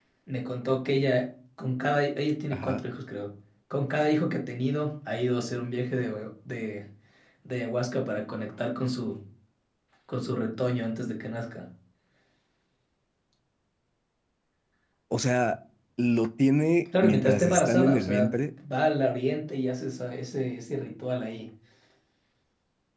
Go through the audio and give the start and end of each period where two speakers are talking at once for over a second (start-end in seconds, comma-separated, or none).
17.0-18.3